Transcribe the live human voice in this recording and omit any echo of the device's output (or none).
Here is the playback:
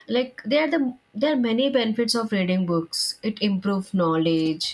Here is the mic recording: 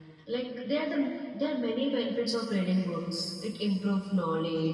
none